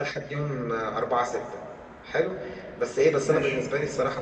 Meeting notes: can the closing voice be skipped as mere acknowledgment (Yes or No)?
Yes